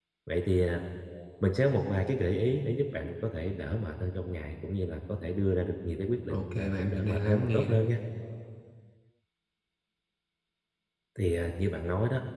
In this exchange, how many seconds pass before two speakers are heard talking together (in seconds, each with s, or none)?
6.3 s